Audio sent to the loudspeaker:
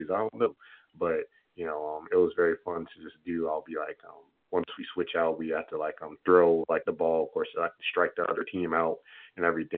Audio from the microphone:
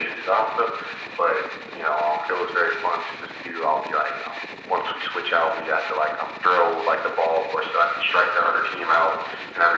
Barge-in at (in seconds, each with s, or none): none